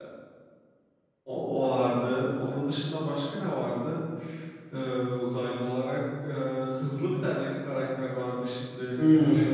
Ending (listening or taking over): taking over